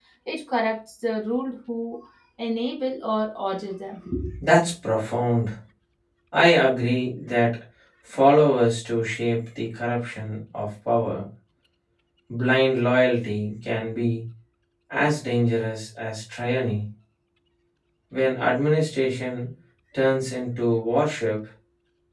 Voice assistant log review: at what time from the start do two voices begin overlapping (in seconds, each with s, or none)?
none